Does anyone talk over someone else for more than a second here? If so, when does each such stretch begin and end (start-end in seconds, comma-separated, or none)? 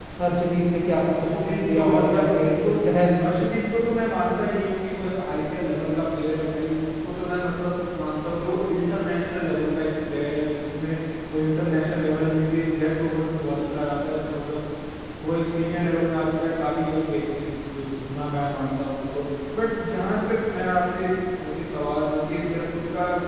1.3-2.6